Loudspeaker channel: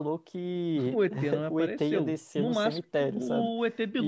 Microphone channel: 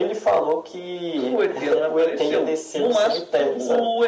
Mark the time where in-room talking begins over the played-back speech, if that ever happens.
none

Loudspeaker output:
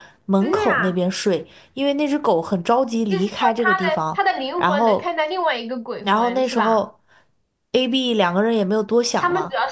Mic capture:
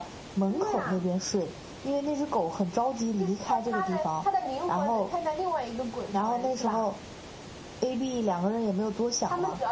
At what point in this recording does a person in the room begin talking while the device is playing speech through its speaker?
none

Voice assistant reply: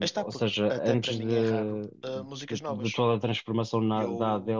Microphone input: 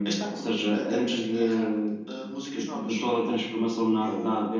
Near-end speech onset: none

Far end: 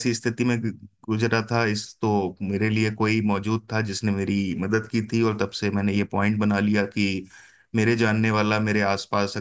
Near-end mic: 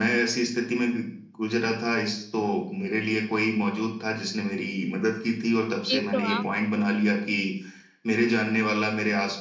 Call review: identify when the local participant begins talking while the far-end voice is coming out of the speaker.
6 s

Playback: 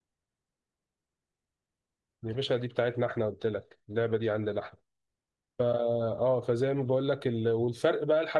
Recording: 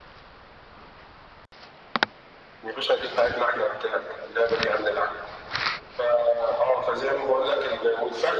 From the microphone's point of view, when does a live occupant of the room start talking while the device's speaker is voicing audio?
none

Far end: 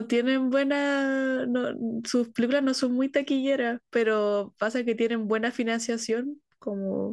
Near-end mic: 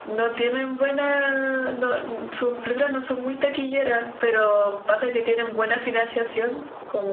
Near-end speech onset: none

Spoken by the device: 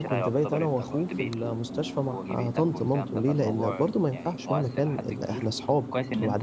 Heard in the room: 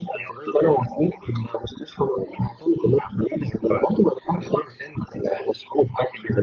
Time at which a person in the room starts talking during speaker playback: none

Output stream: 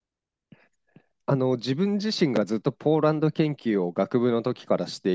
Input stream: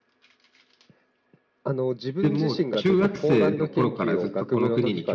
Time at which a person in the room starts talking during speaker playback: 2 s

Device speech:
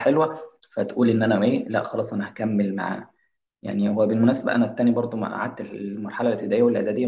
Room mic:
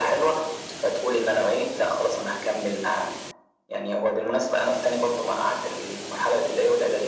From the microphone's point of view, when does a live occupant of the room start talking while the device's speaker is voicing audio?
none

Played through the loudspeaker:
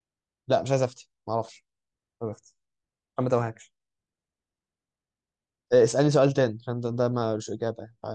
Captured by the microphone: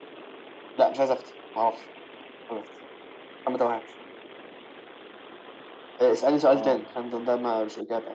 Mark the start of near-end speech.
7 s

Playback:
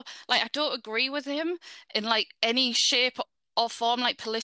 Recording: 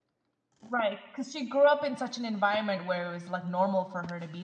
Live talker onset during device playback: 1 s

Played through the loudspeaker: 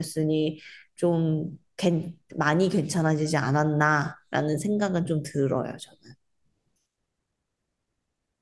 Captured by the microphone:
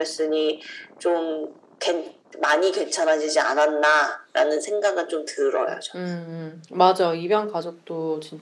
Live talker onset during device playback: 6 s

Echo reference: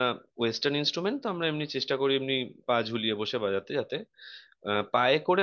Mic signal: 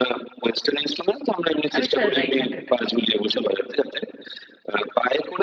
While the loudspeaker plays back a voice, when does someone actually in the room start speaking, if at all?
2 s

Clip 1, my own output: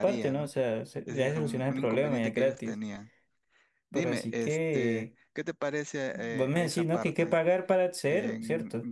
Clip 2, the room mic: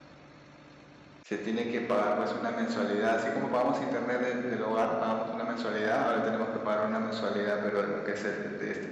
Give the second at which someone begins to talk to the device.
1 s

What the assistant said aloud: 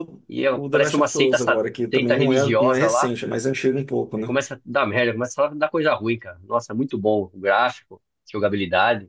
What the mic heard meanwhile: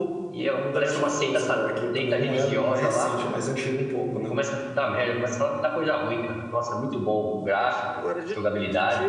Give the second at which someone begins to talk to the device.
8 s

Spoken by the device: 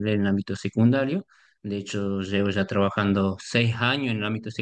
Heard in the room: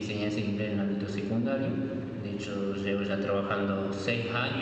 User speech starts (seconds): none

